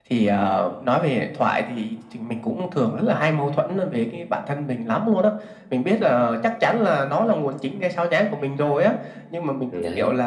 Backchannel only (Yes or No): Yes